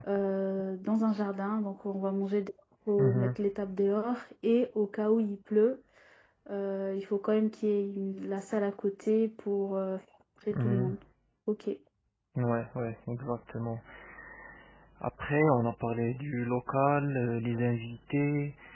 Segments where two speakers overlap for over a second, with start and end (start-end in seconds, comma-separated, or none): none